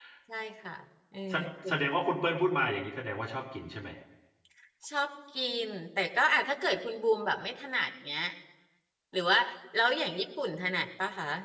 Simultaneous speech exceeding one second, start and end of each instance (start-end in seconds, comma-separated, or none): none